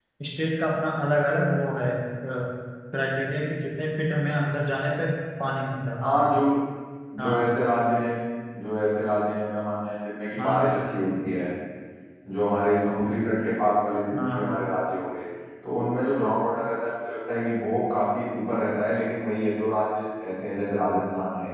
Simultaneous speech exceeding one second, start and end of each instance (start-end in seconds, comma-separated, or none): none